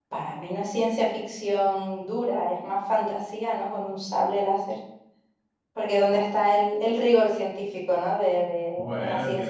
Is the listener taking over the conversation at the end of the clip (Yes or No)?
Yes